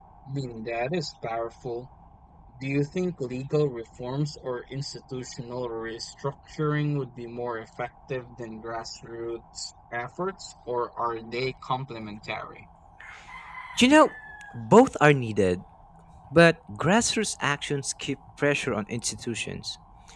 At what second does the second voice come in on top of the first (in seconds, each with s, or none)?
none